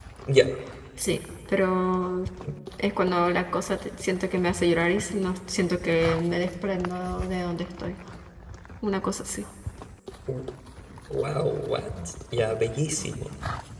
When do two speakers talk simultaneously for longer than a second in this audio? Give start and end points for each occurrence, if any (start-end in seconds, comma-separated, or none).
none